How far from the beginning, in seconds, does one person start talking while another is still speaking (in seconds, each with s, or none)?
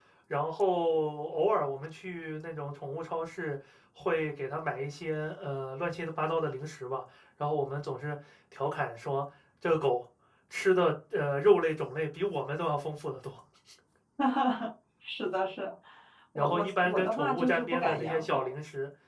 16.4 s